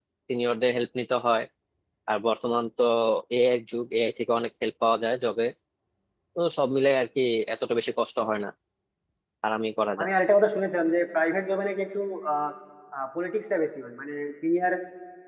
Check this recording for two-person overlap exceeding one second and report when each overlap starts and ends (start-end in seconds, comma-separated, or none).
none